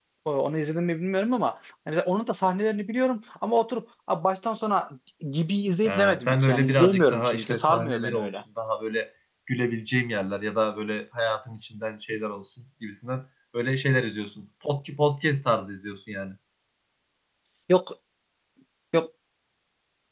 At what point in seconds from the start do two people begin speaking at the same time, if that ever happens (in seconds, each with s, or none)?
5.8 s